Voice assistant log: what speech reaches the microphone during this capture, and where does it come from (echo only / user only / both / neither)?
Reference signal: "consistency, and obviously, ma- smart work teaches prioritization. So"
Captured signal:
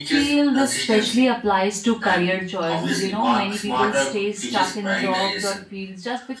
both